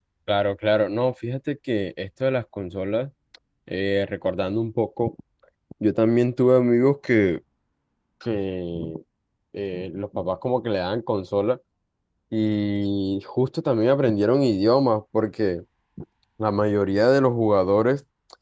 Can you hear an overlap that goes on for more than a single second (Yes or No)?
No